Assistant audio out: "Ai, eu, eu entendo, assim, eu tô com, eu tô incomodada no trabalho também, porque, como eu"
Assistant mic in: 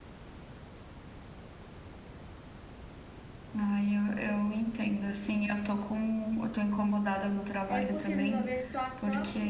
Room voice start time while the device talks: 7.7 s

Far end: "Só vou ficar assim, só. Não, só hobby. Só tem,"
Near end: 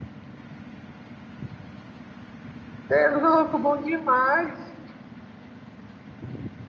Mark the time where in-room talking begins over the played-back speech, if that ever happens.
2.9 s

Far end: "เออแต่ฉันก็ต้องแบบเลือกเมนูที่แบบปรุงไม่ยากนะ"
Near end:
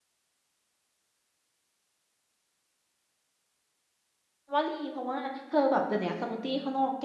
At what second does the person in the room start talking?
4.5 s

